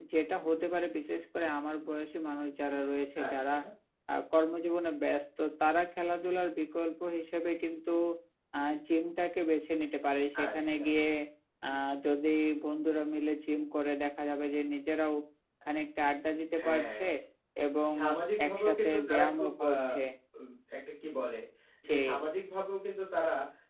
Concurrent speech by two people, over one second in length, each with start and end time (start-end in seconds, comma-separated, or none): 18.5-19.7